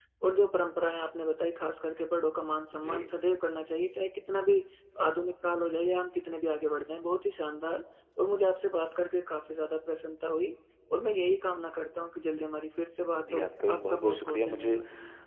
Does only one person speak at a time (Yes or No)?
No